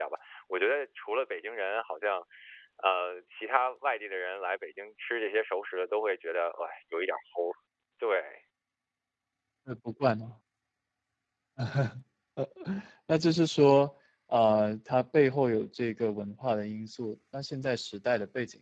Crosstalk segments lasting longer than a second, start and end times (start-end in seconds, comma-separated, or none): none